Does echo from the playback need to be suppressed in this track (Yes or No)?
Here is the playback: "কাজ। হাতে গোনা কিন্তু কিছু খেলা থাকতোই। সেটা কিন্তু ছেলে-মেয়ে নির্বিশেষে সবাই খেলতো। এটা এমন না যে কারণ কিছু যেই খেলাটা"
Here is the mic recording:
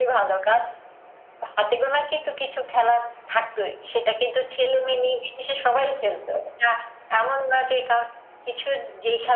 Yes